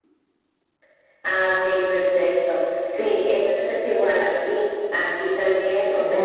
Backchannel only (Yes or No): Yes